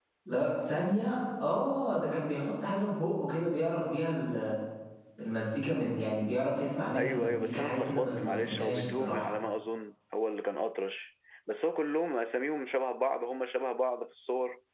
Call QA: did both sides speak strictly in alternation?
No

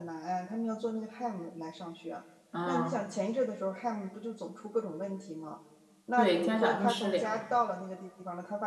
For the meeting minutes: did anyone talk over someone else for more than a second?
Yes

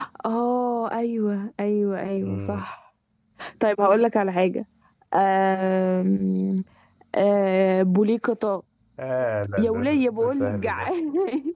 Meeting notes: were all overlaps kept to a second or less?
No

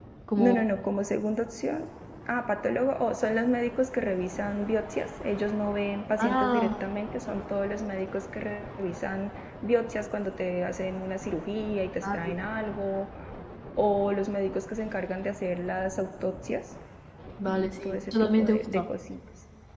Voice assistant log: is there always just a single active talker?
No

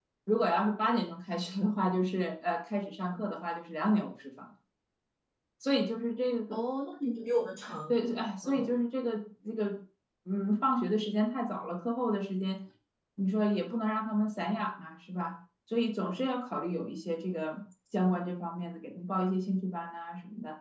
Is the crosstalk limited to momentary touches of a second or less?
Yes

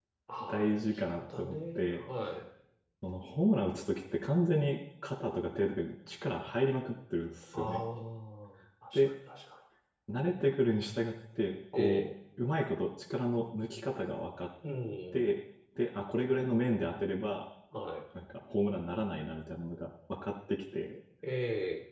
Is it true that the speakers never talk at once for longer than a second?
No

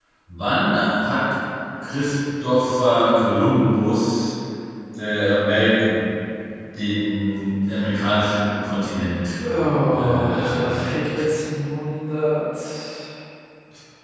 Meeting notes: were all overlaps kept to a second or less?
No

